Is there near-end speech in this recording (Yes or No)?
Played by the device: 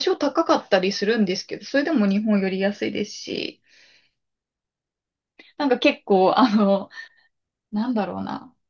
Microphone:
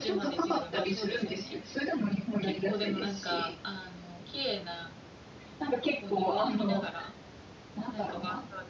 Yes